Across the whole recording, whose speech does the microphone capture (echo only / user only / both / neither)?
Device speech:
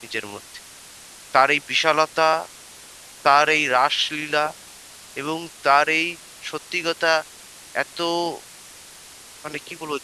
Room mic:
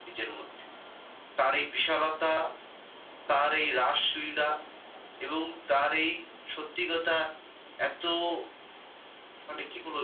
echo only